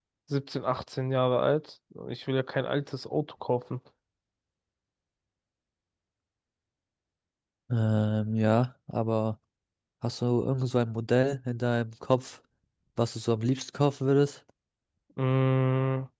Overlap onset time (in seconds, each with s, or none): none